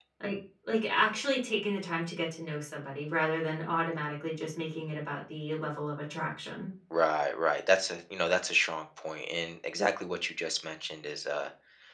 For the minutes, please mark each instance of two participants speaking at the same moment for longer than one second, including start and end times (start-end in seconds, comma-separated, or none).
none